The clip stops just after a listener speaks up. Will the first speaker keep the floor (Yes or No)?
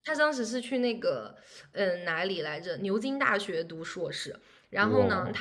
Yes